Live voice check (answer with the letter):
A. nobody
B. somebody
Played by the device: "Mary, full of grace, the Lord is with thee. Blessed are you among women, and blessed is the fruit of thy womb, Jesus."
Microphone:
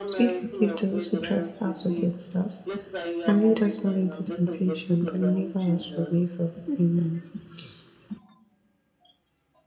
B